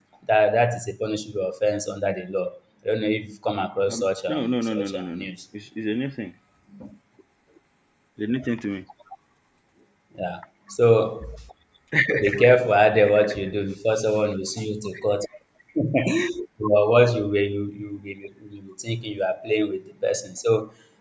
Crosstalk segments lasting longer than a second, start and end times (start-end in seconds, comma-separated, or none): 3.9-5.3